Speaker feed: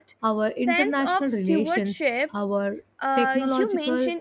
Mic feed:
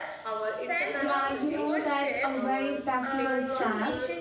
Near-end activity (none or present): present